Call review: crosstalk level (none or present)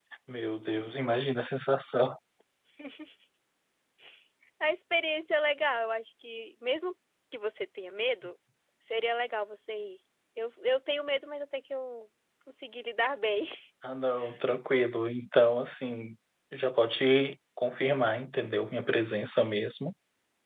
none